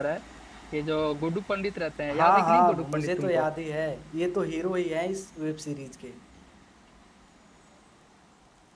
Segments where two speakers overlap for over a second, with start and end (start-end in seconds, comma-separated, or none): 2.1-3.4